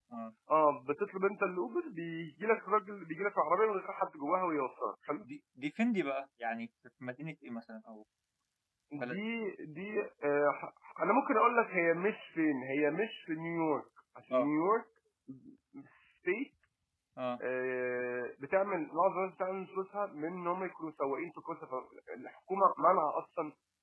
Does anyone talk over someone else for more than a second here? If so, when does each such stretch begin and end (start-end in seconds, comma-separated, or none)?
none